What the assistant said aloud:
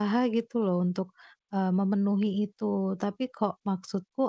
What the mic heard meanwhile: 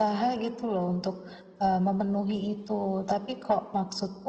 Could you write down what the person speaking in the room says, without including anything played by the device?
none

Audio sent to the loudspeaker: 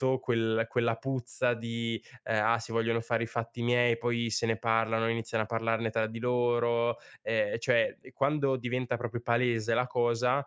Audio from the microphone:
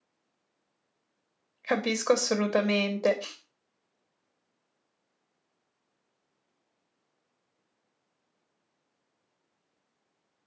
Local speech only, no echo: Capisco assolutamente.

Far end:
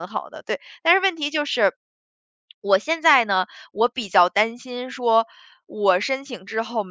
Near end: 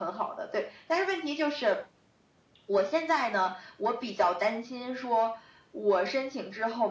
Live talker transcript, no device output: none

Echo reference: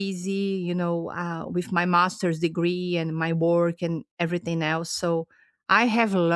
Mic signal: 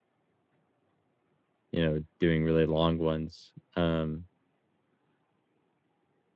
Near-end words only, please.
you know, doing really long ones. Um,

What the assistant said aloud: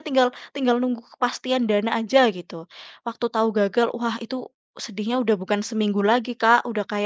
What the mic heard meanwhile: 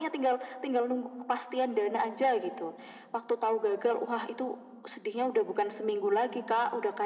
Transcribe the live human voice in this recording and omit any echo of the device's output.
none

